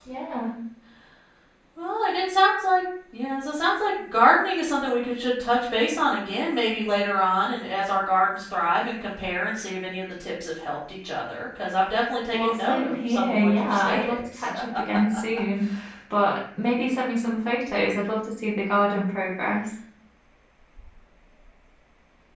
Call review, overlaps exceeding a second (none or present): present